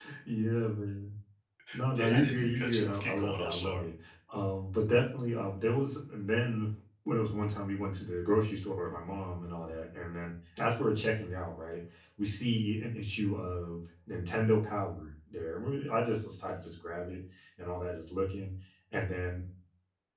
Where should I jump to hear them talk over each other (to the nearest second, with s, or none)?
2 s